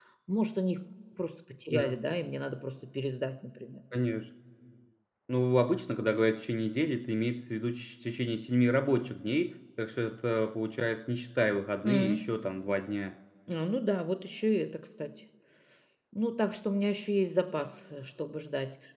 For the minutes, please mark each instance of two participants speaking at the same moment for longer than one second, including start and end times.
none

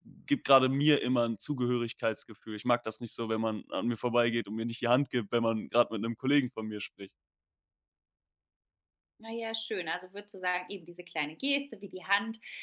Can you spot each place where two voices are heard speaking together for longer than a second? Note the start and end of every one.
none

